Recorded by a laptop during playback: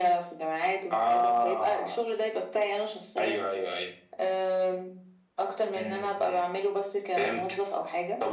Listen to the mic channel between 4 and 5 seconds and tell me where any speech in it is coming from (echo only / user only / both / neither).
echo only